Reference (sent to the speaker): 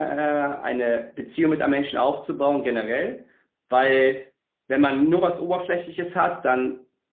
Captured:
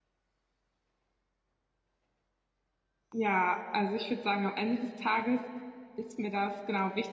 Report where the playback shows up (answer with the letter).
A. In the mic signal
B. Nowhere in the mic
B